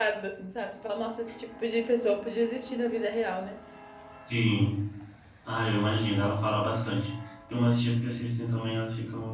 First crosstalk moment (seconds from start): none

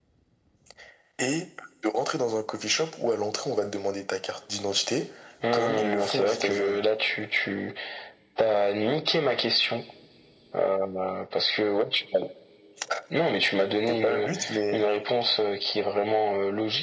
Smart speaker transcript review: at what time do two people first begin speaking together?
5.5 s

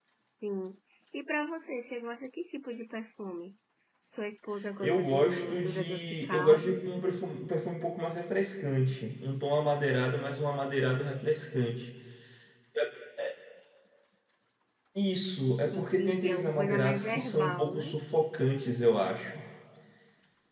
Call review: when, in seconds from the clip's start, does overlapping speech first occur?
4.8 s

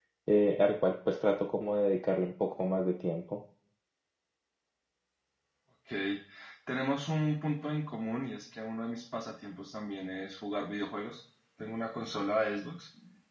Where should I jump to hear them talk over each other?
none

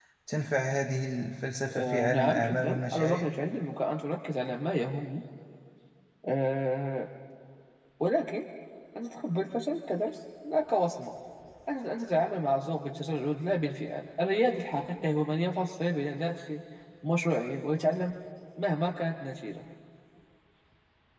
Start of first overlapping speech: 1.7 s

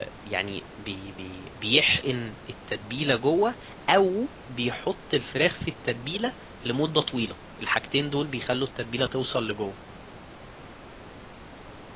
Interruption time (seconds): none

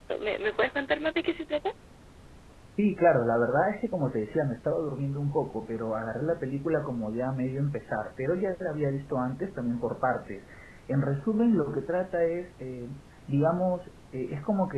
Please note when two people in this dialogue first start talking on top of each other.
none

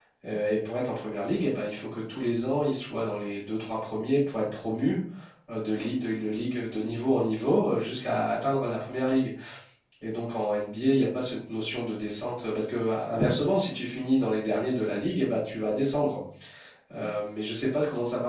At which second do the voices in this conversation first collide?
none

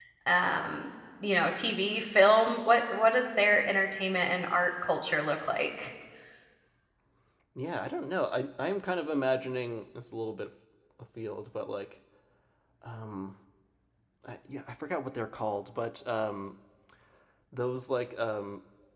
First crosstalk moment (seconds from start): none

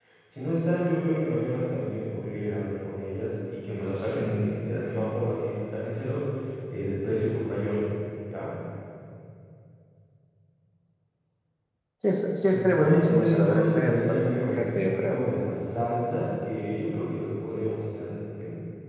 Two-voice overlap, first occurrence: 12.5 s

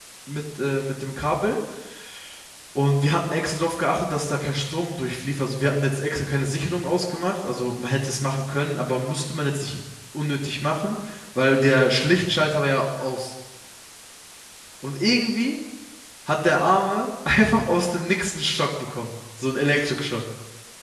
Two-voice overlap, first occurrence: none

